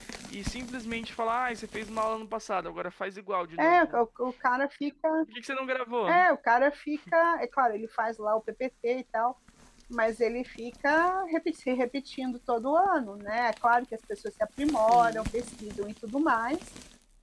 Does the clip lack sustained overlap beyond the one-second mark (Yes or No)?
Yes